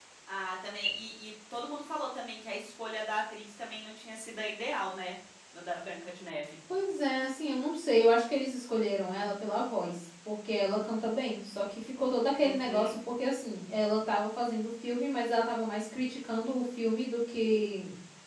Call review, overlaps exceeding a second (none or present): none